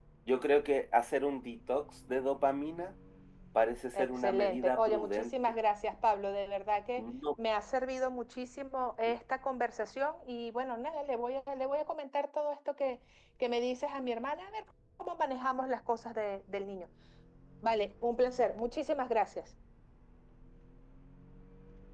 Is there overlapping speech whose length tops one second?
Yes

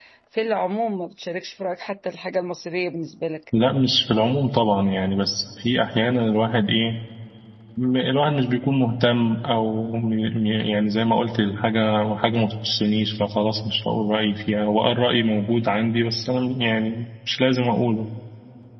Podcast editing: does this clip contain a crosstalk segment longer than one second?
No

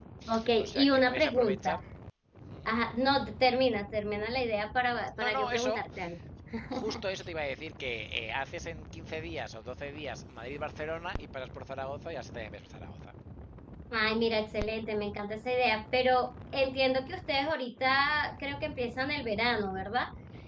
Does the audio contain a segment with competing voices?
Yes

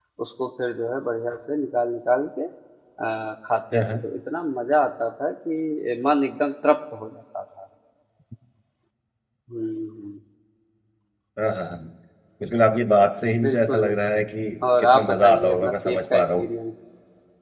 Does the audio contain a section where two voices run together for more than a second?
Yes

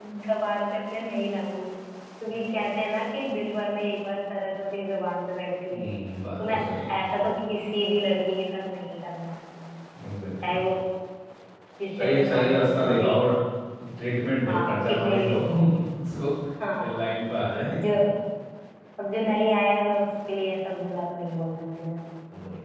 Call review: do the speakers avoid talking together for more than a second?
No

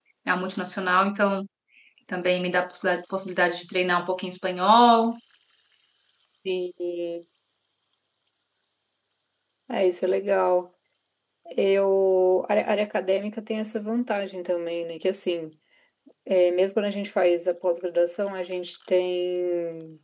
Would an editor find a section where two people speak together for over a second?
No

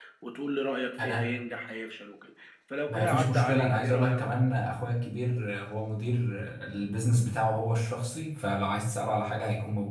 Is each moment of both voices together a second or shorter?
No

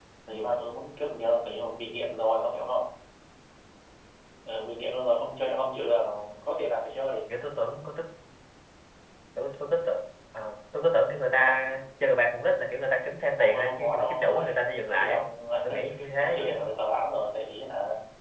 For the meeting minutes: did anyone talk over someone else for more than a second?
Yes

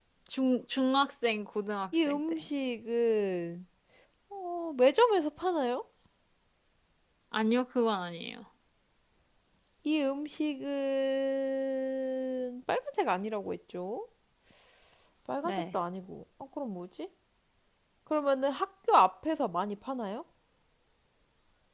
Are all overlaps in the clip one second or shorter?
Yes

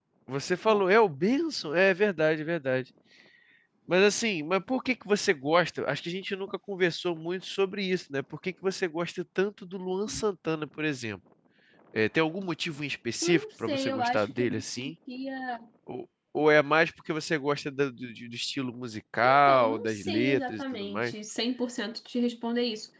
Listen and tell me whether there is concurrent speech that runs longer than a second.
Yes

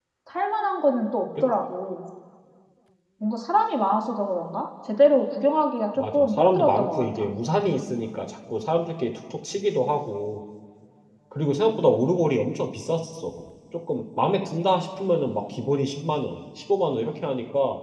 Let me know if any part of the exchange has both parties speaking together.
Yes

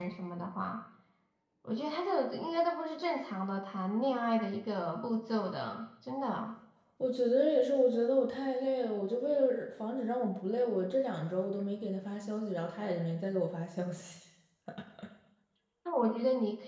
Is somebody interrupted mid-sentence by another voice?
No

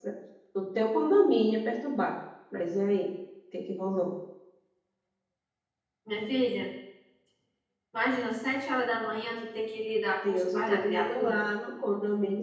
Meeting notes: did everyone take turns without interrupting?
No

